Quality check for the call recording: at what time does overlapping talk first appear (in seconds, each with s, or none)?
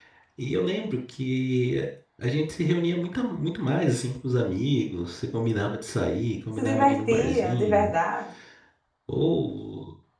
6.6 s